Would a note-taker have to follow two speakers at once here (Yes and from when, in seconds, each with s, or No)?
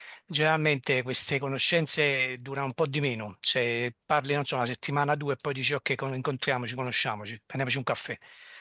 No